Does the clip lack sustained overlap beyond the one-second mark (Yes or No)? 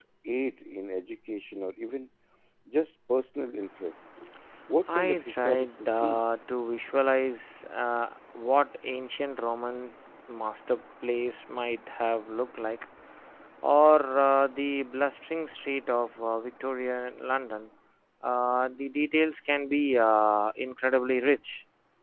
No